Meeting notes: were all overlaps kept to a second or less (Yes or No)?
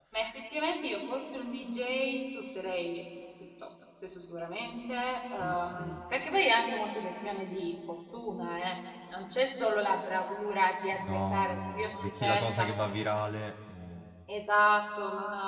No